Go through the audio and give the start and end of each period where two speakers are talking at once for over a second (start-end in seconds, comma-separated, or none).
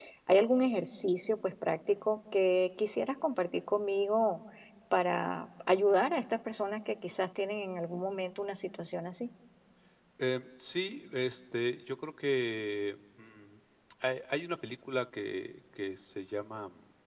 none